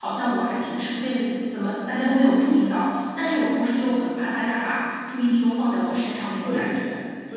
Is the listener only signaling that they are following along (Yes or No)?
No